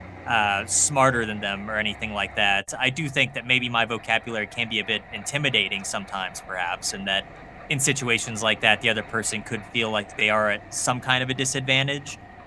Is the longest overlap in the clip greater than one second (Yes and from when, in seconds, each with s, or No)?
No